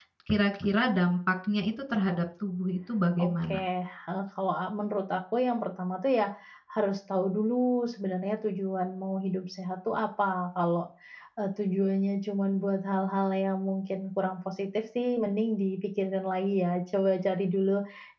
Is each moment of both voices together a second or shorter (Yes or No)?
Yes